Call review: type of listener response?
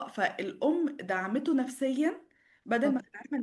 listening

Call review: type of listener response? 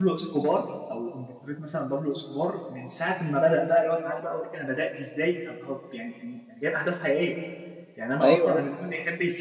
listening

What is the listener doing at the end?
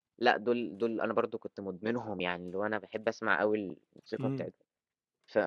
listening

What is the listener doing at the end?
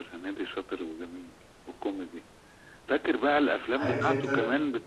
listening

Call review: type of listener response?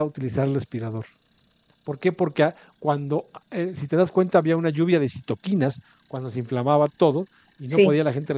listening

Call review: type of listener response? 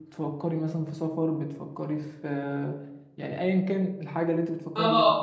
taking over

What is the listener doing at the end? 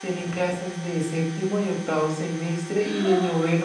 listening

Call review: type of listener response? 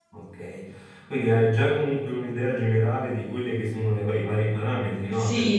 taking over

